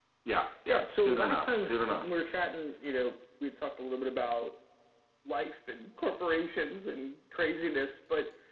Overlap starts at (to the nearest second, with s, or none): 1 s